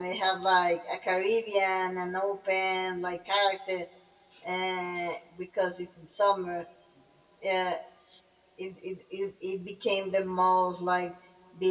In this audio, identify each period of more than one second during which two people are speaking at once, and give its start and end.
none

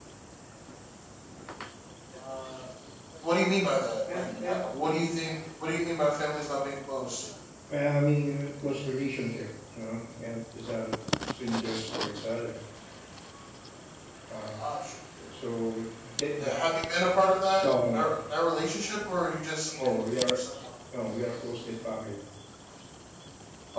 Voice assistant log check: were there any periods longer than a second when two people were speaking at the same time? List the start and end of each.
none

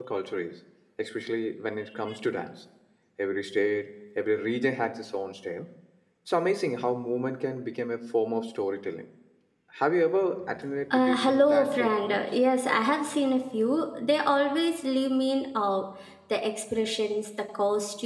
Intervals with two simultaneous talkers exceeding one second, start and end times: 10.9-12.2

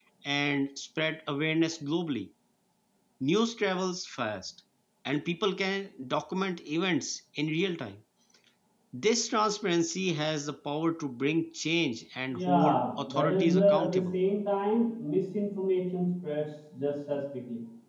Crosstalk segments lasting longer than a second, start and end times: 12.3-14.2

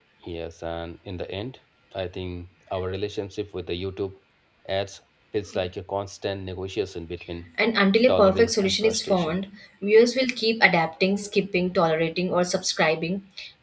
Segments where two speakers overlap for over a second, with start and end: 8.1-9.4

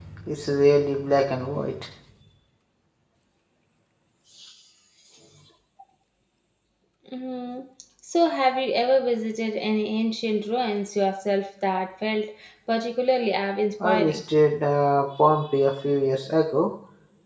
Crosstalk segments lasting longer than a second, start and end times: none

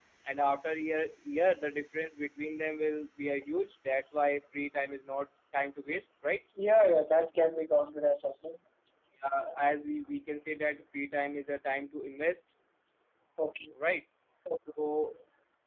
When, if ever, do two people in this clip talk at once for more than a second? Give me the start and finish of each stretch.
none

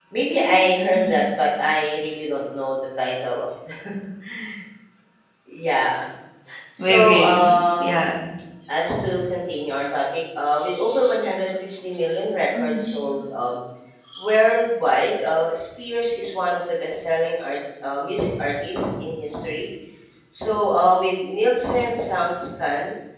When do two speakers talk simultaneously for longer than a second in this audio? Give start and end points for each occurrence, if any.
6.8-8.0

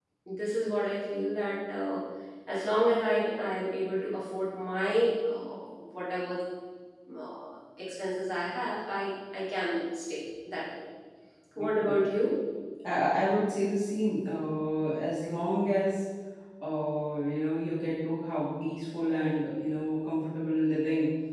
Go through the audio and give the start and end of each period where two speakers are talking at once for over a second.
none

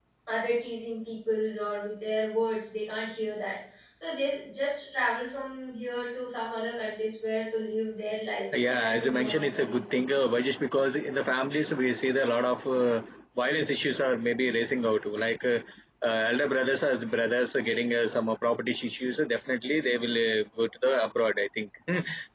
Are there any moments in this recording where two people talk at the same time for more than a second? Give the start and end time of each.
8.8-10.0

